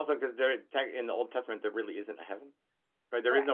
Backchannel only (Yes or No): No